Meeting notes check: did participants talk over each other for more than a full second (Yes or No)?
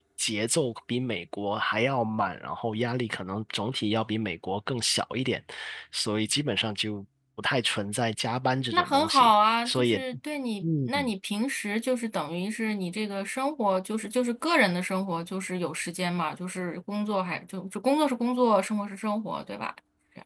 Yes